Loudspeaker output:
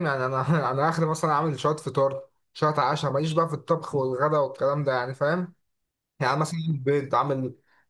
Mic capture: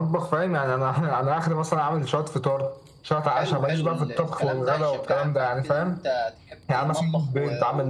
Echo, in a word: present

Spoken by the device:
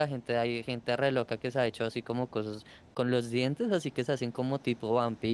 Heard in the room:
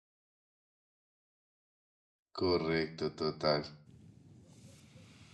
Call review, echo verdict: none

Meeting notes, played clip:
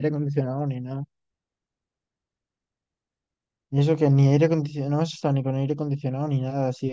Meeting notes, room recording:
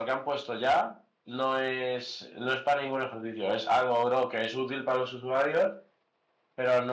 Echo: none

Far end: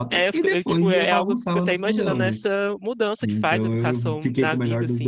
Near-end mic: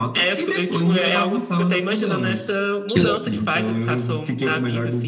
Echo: present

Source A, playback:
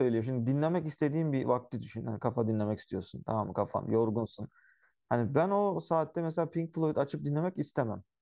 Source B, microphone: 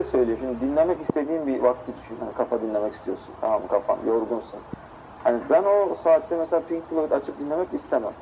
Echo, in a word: present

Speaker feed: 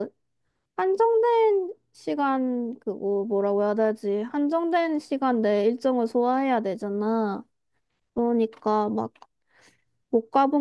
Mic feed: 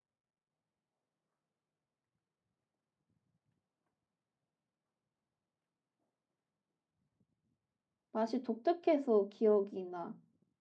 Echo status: none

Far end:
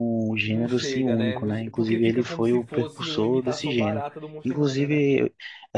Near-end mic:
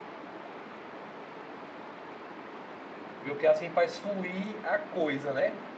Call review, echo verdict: none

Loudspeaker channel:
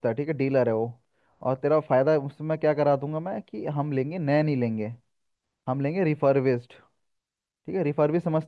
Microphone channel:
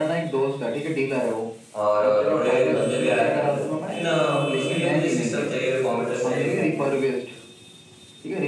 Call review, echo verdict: present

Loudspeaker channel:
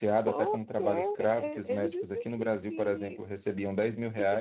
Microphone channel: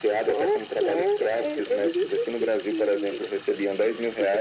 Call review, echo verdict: present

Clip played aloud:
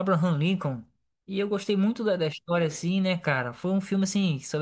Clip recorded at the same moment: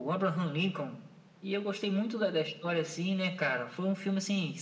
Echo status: present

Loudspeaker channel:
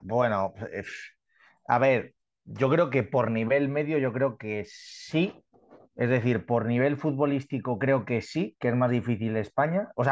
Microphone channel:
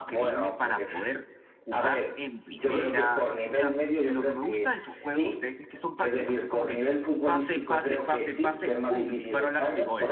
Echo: present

